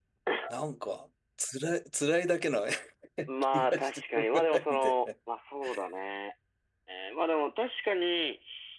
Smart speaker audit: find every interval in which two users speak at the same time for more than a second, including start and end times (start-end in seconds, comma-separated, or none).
3.5-5.1